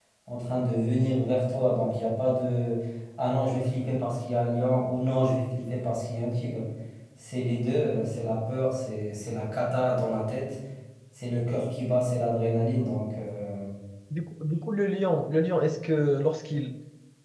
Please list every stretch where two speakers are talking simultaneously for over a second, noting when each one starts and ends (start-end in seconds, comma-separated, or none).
none